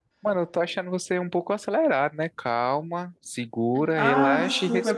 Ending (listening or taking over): taking over